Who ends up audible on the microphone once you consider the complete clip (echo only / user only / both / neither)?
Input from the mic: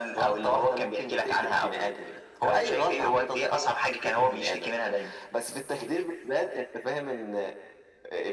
echo only